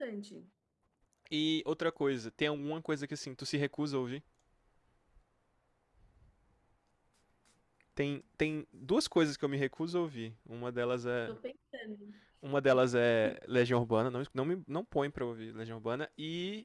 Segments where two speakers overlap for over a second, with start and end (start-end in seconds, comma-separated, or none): none